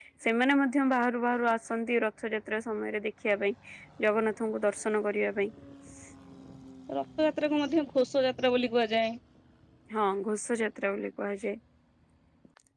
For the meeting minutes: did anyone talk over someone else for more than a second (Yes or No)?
No